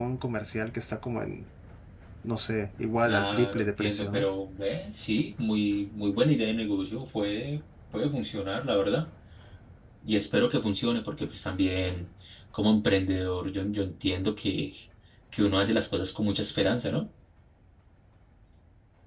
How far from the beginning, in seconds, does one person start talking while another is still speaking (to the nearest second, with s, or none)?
3 s